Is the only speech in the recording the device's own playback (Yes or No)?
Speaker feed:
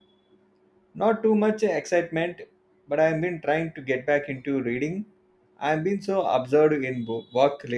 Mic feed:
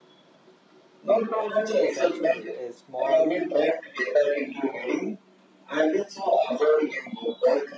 No